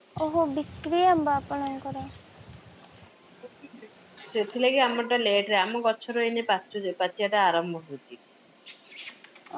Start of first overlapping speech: none

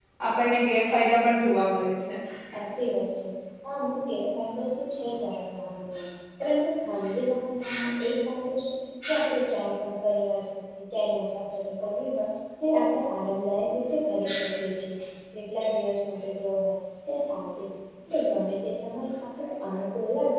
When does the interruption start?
none

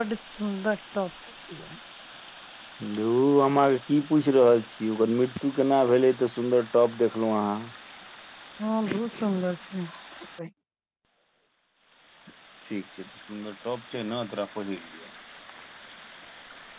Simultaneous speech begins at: none

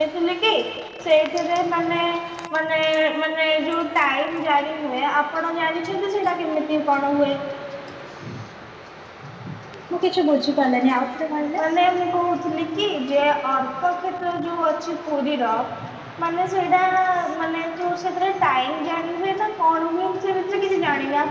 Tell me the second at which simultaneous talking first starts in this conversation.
none

